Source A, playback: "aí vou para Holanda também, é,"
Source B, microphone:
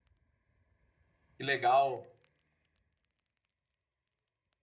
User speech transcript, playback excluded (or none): Que legal.